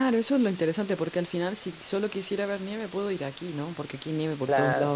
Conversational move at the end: listening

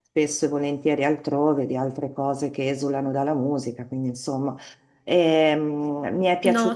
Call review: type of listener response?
listening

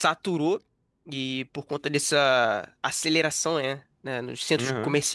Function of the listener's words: listening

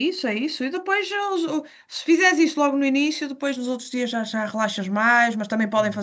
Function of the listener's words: listening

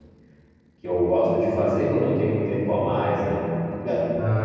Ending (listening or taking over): listening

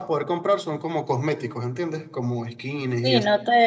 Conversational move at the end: taking over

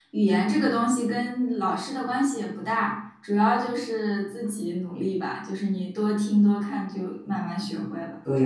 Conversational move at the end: taking over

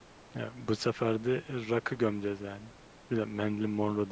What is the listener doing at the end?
listening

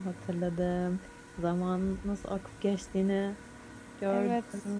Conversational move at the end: taking over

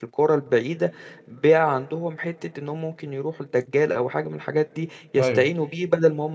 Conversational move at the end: listening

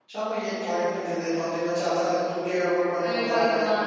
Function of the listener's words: taking over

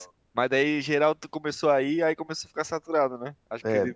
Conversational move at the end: taking over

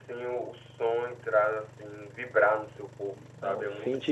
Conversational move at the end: taking over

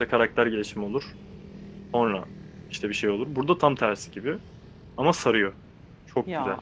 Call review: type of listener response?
taking over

